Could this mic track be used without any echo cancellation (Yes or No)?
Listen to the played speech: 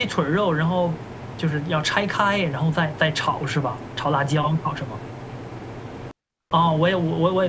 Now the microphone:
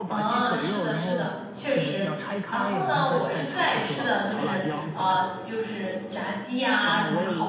No